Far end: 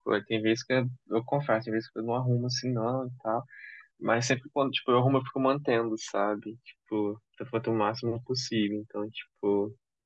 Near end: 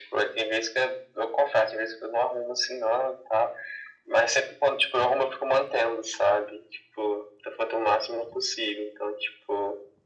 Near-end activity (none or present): none